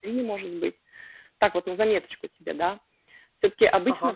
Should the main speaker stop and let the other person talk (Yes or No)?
No